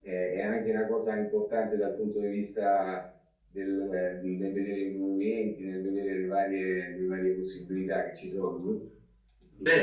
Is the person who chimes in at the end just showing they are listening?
No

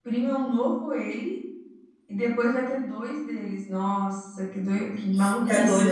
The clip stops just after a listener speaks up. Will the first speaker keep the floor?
No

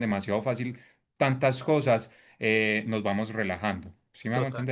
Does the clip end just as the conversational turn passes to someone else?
Yes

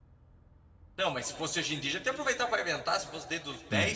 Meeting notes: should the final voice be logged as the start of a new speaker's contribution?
Yes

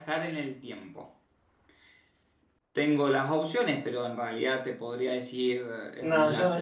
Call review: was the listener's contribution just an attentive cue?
No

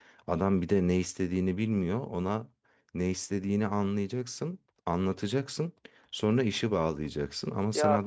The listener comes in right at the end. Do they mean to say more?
No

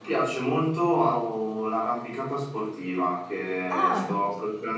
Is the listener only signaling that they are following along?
Yes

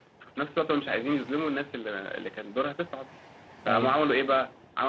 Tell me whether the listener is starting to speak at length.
No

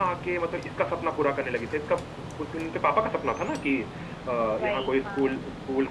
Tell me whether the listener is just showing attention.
Yes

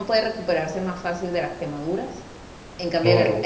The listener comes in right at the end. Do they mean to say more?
No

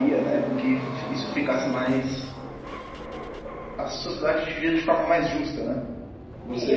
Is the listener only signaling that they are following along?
No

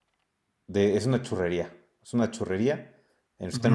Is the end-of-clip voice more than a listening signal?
No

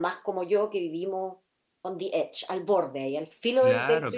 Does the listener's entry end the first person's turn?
Yes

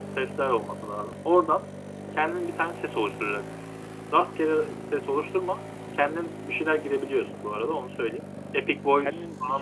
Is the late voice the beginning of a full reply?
Yes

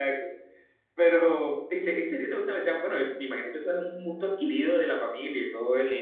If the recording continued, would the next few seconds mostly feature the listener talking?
Yes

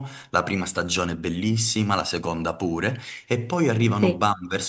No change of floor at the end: Yes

